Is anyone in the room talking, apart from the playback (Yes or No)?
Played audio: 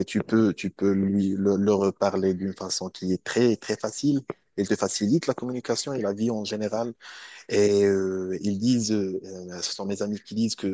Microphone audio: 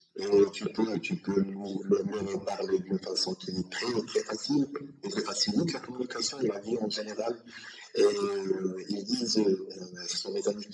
No